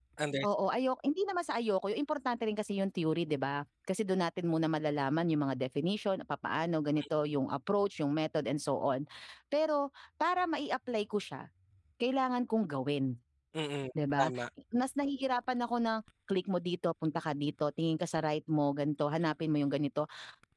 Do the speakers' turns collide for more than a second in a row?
No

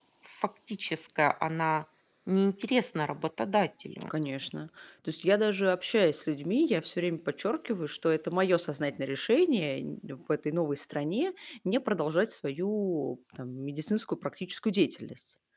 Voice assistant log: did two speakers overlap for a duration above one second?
No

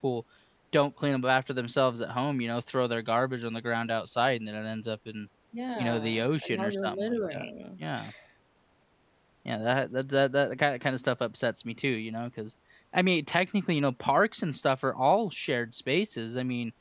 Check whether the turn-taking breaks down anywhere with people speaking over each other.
Yes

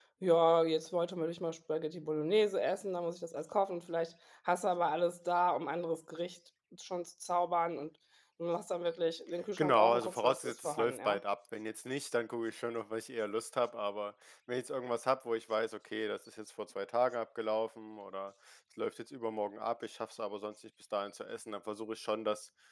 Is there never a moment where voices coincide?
No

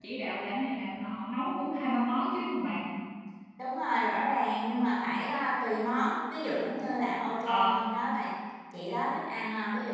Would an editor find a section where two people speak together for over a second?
No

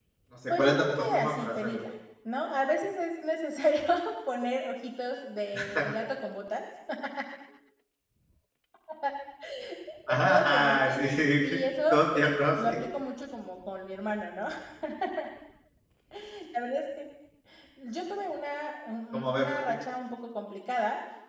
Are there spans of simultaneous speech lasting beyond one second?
Yes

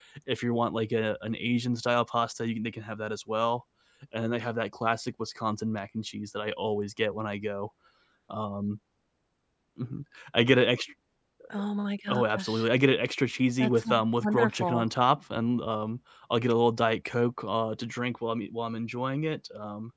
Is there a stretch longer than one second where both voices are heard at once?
Yes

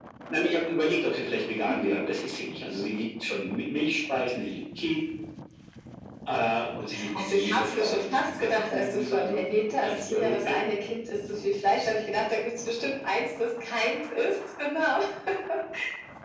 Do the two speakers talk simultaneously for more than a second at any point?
Yes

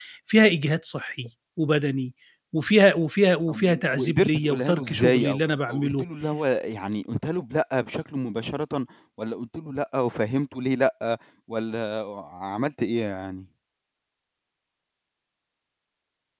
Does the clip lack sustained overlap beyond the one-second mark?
No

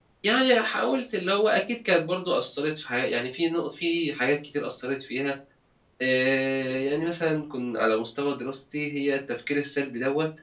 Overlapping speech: No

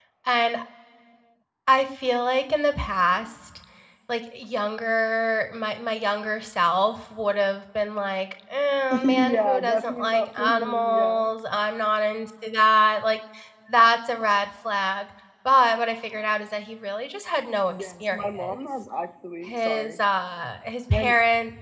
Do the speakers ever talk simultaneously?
Yes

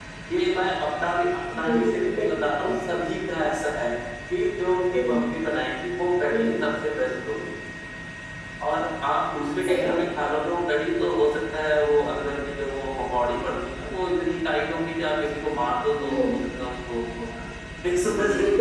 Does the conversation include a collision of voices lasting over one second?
Yes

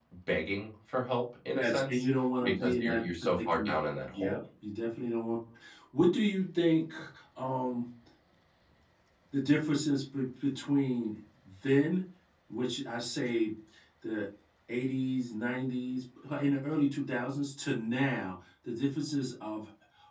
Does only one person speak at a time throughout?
No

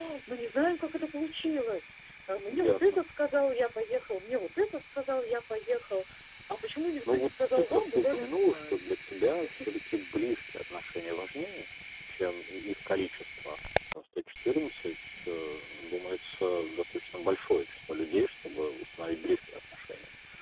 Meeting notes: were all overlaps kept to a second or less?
No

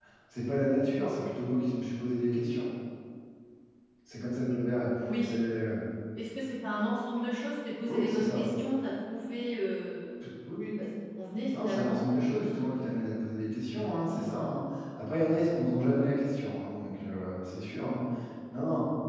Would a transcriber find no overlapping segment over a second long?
Yes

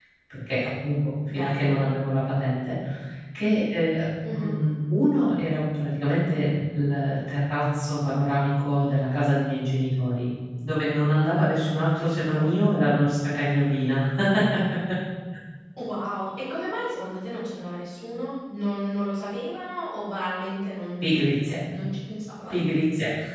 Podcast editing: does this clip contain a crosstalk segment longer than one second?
No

